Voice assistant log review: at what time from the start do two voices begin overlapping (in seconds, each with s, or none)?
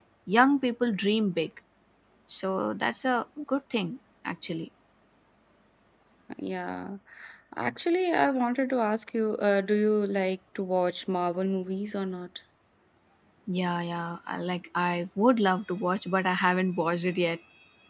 none